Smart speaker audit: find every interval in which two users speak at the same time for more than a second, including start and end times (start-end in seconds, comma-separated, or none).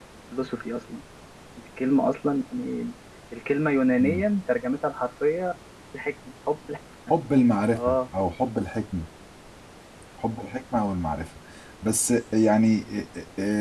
none